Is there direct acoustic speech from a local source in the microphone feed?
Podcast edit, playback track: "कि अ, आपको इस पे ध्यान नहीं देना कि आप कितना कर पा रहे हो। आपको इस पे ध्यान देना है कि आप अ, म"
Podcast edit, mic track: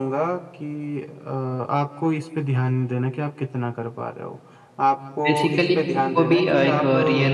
Yes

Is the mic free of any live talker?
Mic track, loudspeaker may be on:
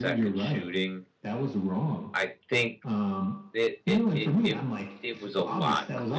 No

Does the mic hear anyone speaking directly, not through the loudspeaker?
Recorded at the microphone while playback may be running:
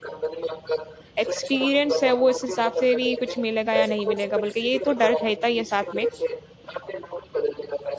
Yes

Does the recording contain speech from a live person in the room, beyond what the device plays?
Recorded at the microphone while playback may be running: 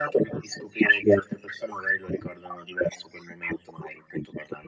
No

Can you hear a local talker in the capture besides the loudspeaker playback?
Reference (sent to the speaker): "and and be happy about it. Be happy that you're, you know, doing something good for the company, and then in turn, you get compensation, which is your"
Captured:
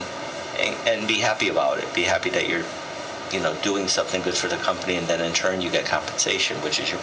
No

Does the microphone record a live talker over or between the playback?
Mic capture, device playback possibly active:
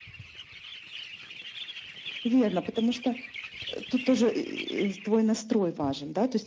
No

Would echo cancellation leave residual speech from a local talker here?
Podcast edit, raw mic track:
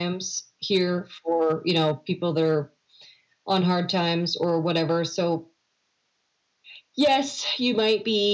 No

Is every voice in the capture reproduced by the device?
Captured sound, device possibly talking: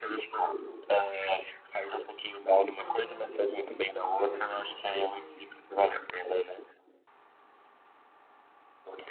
No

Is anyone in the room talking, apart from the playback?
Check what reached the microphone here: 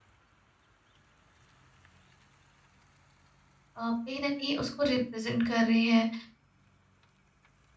Yes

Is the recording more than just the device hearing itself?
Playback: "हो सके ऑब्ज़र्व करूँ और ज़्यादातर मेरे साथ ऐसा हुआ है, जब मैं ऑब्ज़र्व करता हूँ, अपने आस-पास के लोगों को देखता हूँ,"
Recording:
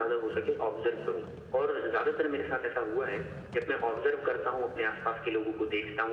No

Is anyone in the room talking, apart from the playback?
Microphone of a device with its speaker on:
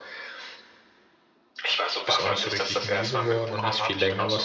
Yes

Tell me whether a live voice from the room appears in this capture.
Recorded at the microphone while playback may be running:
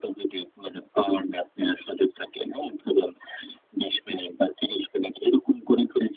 No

